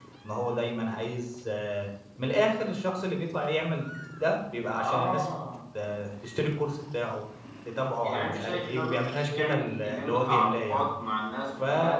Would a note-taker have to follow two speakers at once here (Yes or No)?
Yes